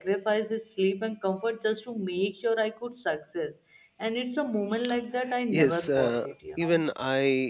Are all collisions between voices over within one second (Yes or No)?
No